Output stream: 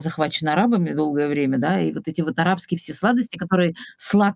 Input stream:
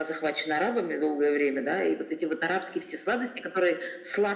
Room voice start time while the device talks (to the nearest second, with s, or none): none